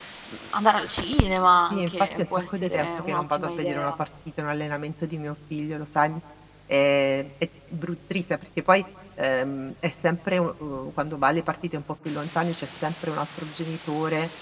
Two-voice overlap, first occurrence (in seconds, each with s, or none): 1.7 s